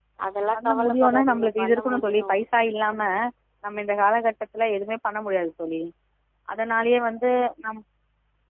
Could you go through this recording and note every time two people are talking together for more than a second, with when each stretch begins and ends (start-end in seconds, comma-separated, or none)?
0.6-2.4